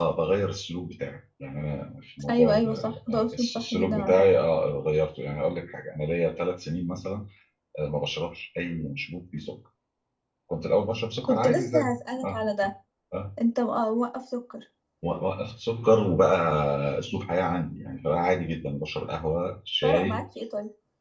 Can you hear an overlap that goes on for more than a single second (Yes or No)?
Yes